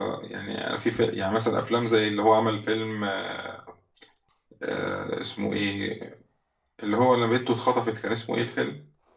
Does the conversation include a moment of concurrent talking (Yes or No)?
No